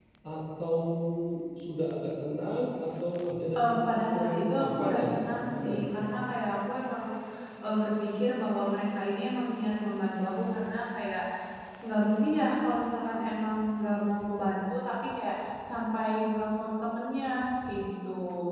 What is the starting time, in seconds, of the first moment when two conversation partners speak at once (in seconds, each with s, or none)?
3.5 s